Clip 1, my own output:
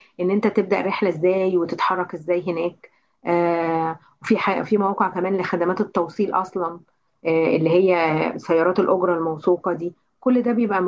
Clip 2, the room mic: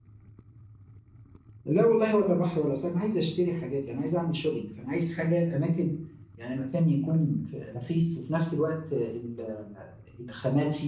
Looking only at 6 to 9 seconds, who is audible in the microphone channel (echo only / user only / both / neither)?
user only